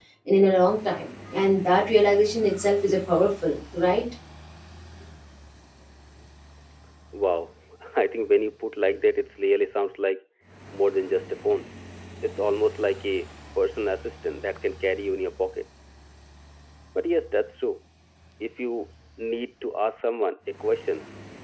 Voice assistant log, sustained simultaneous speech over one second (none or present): none